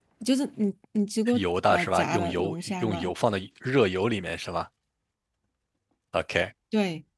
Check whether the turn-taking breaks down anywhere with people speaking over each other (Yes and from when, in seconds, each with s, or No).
Yes, from 1.3 s